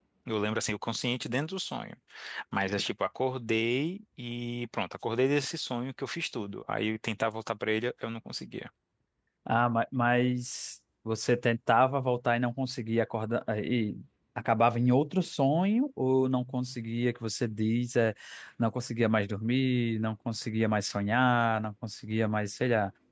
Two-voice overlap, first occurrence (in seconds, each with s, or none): none